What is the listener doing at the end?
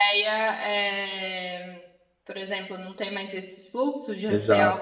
taking over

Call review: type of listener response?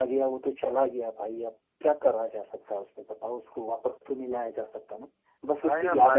taking over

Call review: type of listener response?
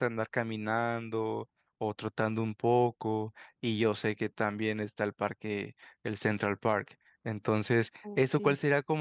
listening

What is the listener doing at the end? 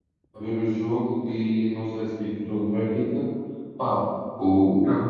listening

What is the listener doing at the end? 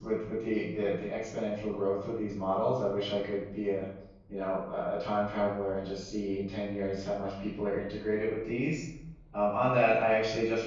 listening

